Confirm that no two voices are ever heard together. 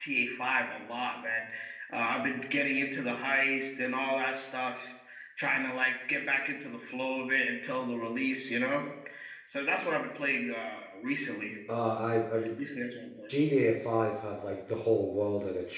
Yes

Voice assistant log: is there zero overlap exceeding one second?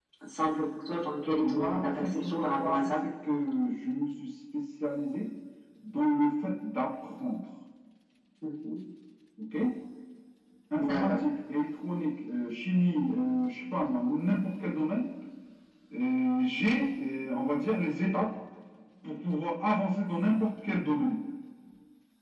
No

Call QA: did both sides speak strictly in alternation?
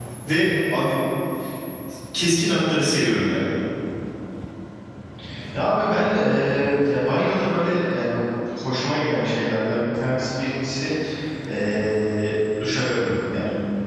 Yes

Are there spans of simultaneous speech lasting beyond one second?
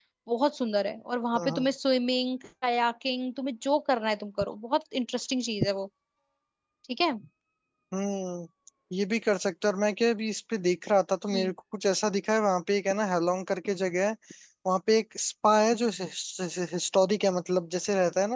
No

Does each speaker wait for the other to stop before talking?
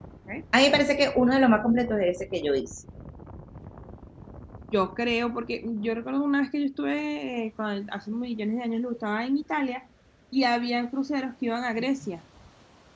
Yes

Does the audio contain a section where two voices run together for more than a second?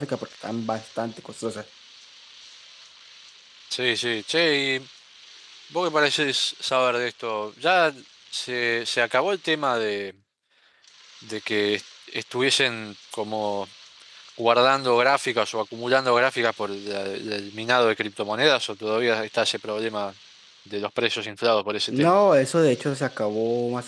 No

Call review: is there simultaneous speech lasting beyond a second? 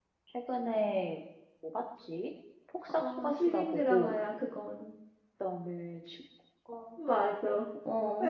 Yes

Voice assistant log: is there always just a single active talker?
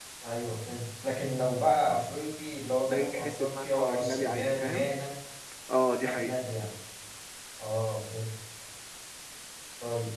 No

